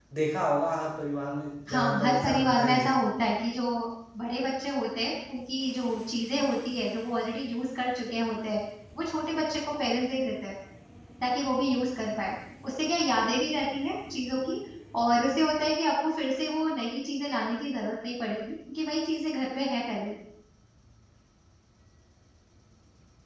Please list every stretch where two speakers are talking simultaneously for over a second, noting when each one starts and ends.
1.7-2.9

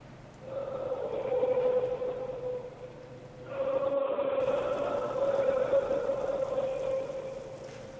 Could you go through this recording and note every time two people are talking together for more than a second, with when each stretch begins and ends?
none

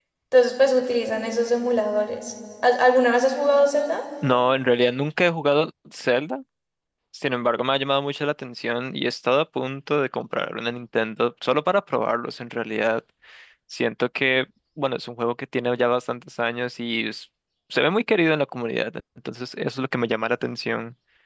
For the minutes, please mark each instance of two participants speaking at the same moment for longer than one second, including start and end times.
none

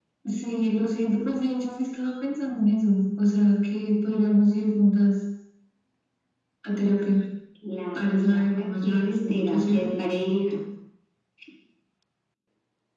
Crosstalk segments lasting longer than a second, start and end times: 8.0-9.9

